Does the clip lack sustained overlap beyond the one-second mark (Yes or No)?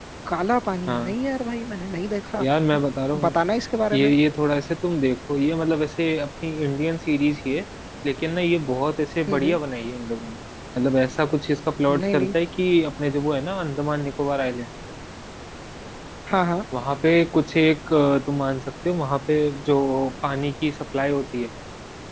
Yes